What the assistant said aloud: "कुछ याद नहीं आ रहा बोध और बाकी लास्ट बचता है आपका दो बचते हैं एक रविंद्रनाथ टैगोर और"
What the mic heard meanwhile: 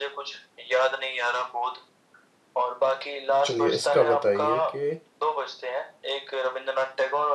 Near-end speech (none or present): present